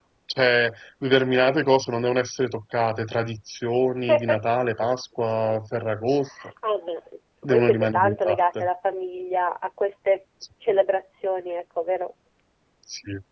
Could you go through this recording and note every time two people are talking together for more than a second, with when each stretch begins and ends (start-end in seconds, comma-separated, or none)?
7.4-8.7